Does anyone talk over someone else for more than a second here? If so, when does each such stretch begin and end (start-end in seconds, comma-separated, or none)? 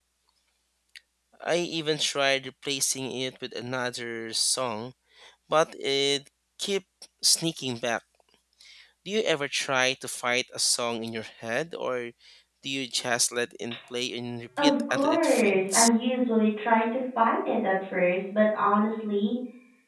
14.6-15.9